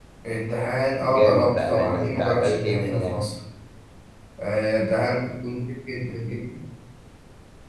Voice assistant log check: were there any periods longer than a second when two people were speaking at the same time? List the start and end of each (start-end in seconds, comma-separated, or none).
1.1-3.2